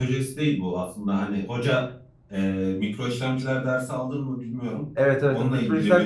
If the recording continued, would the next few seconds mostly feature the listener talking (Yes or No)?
Yes